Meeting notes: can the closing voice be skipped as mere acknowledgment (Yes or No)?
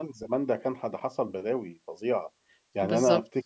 Yes